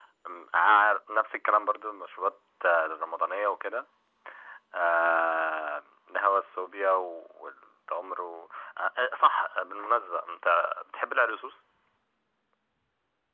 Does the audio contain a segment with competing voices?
No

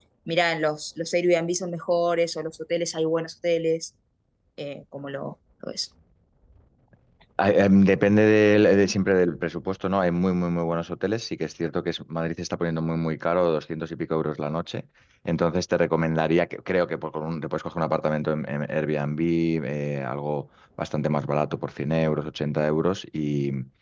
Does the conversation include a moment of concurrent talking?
No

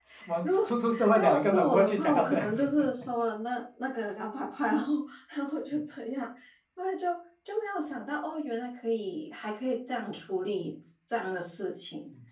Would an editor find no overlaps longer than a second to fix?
No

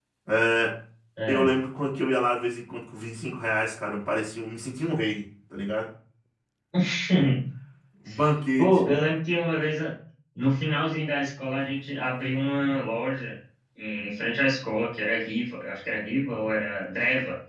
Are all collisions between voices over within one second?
Yes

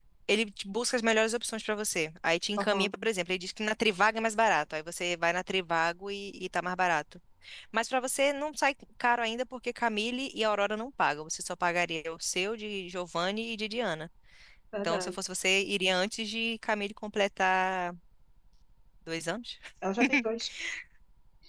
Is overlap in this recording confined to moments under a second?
Yes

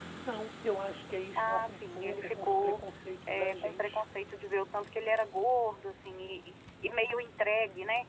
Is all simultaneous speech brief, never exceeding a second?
No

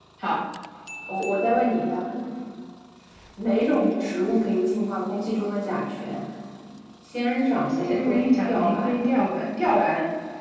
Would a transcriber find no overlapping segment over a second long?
No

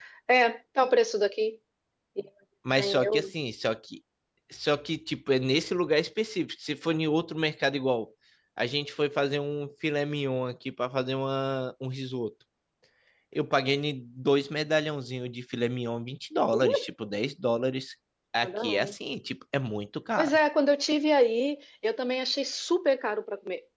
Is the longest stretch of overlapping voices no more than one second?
Yes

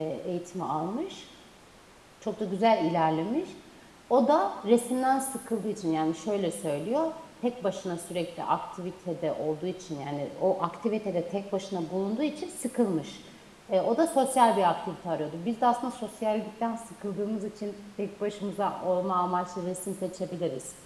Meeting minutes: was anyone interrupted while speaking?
No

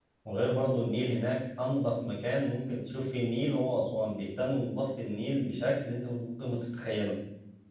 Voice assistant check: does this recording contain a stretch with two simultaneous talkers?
No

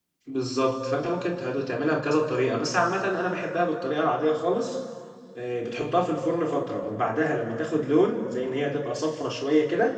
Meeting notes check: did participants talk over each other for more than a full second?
No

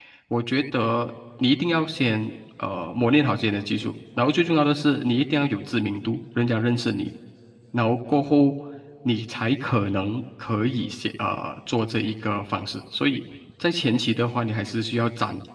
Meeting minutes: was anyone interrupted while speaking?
No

